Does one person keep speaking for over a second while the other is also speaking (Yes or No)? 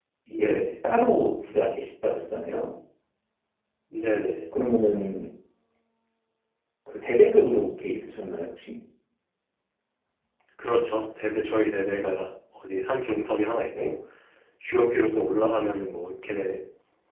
No